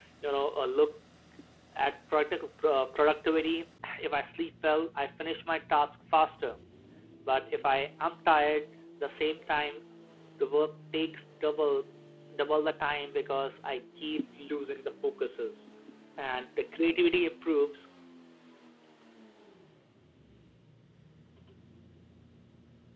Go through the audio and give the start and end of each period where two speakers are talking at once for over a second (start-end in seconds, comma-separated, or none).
none